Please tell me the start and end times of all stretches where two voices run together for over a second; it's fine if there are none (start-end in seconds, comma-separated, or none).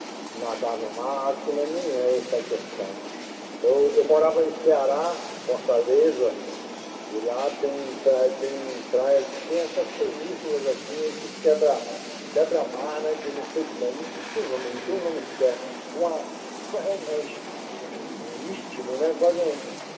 none